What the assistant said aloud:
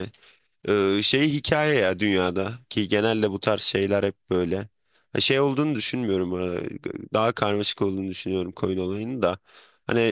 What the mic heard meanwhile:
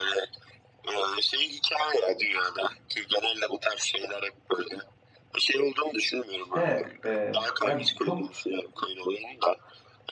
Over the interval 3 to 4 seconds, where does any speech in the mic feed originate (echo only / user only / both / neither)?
echo only